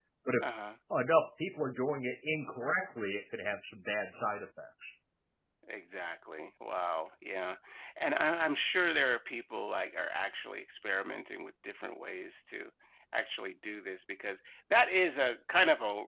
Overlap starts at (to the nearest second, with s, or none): none